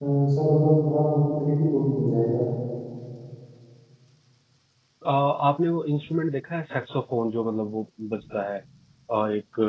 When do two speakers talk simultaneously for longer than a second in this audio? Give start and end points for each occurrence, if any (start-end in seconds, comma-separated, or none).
none